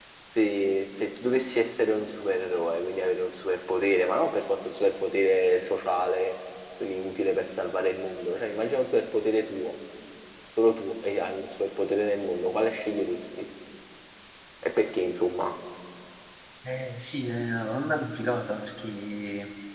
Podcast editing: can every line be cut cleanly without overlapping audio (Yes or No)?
Yes